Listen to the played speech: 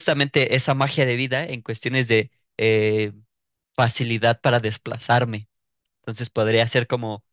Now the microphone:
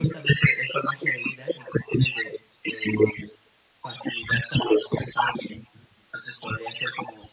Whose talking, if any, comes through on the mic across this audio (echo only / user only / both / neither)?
echo only